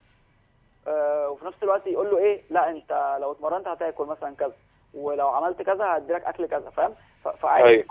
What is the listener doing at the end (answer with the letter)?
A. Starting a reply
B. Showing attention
B